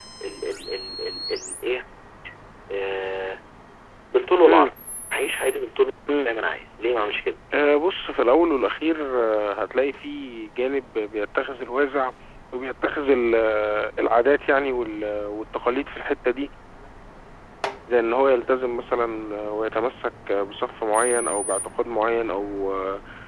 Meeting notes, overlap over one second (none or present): none